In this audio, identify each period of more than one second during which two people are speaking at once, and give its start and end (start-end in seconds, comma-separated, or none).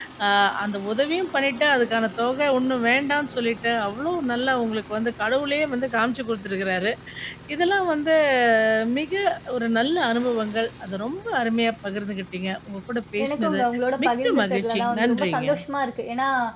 14.0-15.5